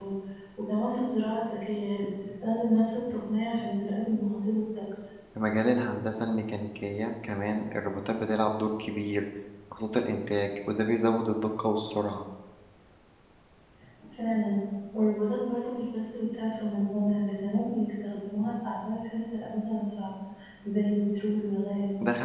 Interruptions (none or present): none